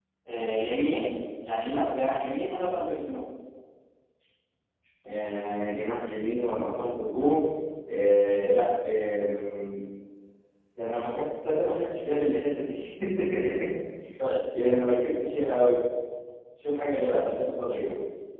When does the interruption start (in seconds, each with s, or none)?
none